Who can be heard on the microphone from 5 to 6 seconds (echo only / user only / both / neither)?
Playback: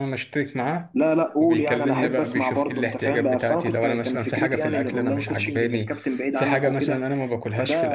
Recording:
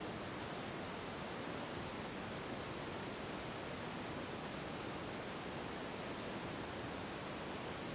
neither